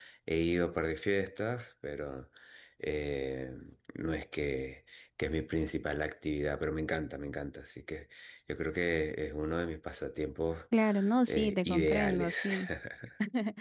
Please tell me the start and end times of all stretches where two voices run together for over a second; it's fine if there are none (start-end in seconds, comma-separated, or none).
11.3-12.5